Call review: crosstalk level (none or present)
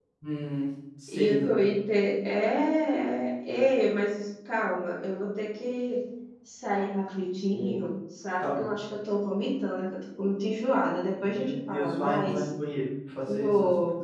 present